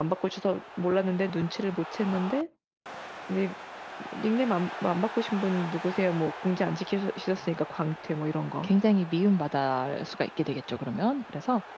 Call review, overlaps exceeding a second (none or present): none